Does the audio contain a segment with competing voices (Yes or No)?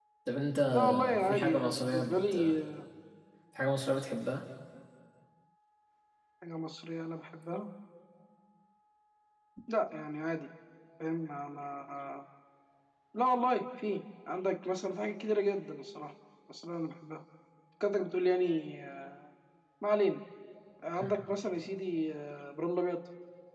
Yes